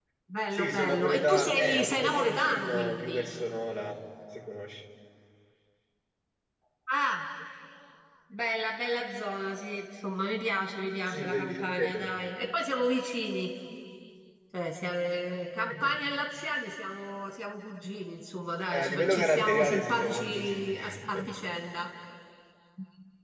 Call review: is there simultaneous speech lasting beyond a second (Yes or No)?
Yes